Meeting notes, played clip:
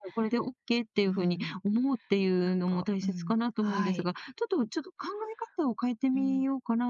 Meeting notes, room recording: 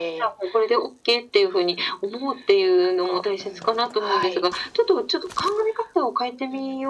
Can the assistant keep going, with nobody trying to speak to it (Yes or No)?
Yes